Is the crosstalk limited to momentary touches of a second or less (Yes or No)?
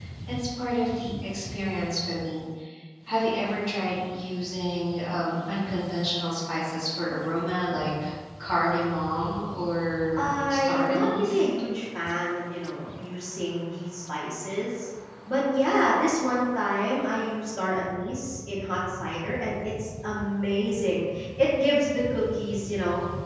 No